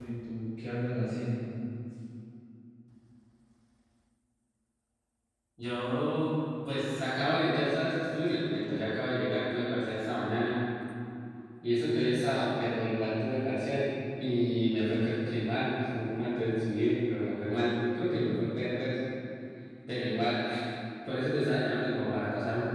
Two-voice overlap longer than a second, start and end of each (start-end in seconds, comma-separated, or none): none